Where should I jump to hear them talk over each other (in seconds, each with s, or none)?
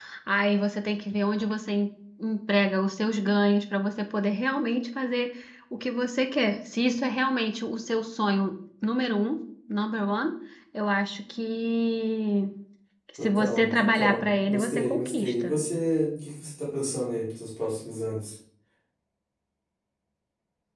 13.2 s